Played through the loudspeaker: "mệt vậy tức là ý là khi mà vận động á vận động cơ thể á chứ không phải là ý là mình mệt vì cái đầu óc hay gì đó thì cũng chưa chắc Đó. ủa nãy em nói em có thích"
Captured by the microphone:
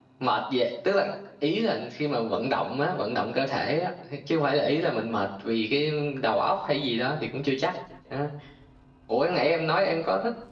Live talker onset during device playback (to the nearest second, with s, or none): none